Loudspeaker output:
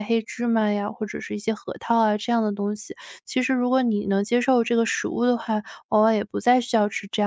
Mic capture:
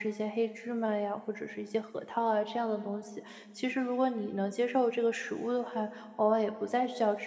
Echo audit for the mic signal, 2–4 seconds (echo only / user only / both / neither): echo only